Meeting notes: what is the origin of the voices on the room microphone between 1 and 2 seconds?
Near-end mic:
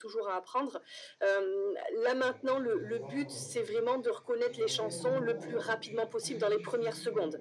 echo only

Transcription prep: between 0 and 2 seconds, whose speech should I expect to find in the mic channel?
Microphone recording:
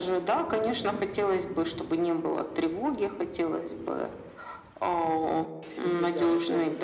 echo only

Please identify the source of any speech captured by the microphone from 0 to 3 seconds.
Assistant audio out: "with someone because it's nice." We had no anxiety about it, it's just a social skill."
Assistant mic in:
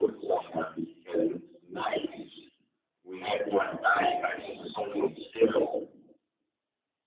echo only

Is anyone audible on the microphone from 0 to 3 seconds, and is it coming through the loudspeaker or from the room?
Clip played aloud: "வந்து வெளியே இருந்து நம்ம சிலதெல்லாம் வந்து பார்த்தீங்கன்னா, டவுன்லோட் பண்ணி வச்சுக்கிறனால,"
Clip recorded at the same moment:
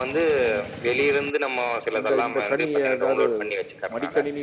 both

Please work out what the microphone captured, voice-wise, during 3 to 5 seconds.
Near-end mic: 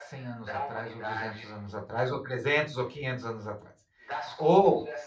both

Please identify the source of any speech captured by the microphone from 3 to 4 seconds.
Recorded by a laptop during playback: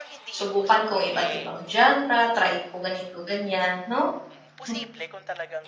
user only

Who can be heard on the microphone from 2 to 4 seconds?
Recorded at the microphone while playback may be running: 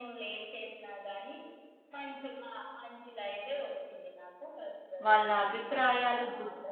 echo only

